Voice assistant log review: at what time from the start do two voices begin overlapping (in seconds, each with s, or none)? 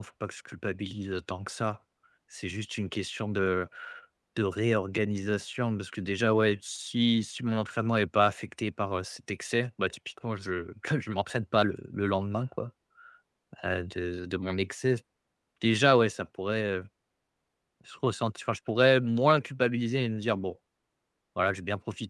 none